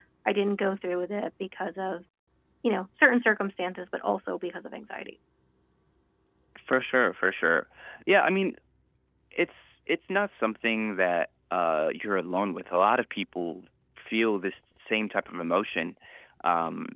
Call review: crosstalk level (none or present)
none